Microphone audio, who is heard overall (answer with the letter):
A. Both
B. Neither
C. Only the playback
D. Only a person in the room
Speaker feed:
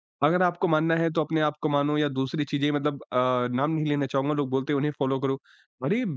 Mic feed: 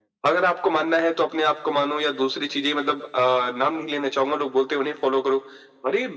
C